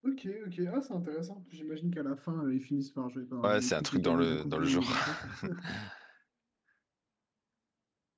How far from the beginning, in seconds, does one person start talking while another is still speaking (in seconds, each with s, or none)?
3.4 s